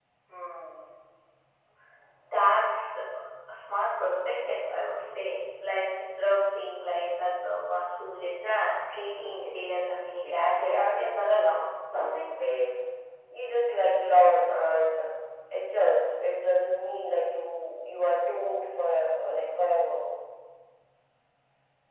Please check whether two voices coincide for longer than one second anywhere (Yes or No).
Yes